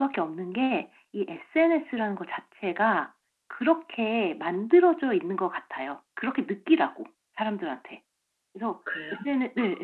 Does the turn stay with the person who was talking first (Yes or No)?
Yes